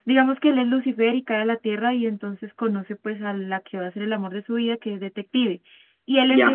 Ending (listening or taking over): listening